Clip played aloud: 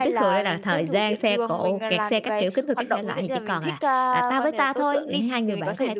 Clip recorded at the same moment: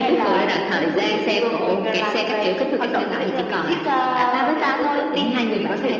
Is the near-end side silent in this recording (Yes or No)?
Yes